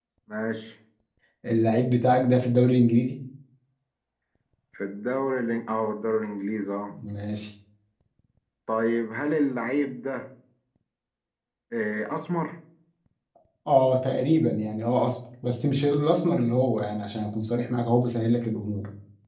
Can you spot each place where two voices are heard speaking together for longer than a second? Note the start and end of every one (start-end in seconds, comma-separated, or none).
none